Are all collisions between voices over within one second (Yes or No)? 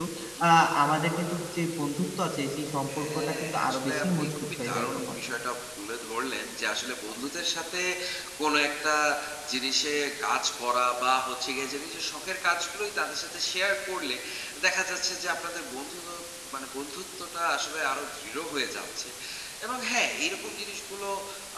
No